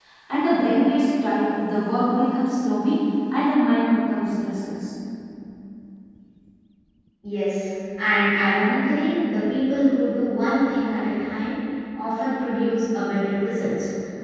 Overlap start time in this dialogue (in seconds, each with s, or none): none